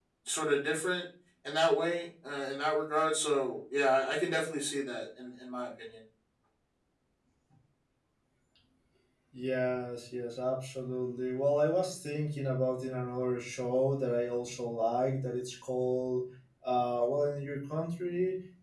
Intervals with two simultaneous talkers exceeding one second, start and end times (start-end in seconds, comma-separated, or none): none